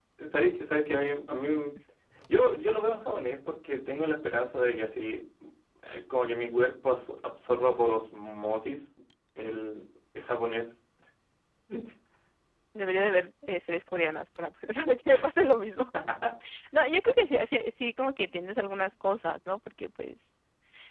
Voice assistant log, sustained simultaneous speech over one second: none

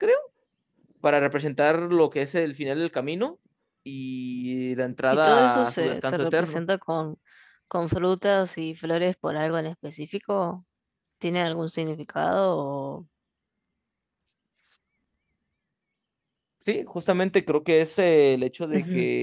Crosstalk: present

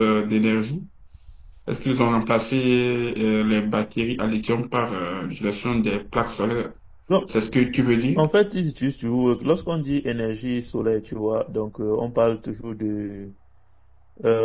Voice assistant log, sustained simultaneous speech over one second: none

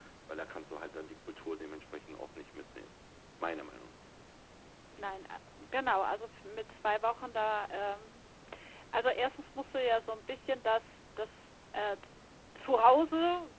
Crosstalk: none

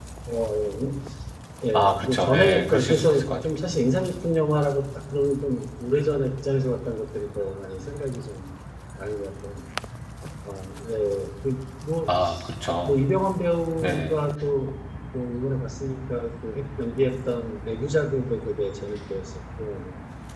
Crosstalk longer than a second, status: present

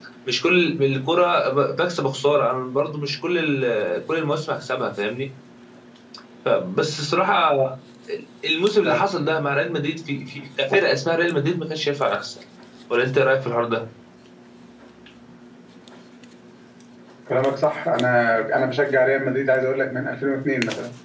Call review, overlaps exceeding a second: none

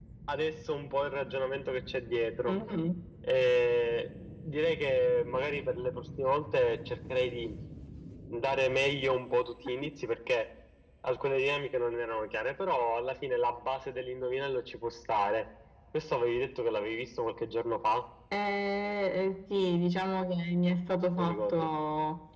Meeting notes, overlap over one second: none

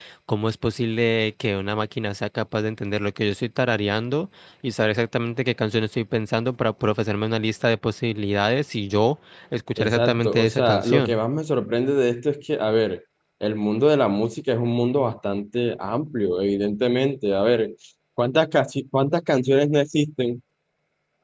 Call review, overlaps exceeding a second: present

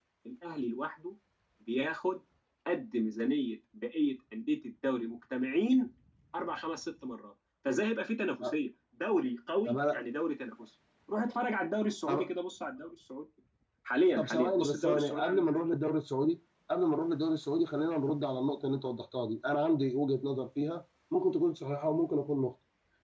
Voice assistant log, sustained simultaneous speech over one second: present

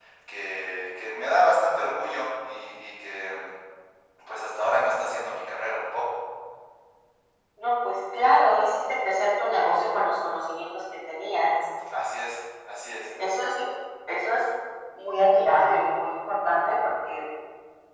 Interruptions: none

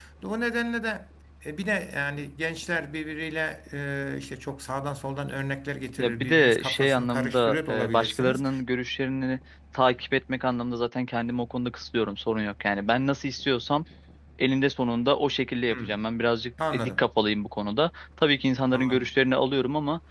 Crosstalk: present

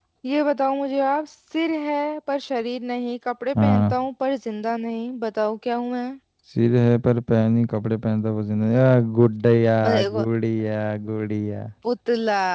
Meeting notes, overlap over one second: none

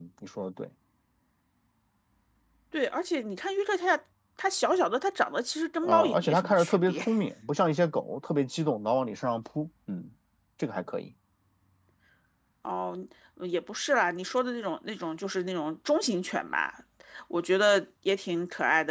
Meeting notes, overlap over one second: present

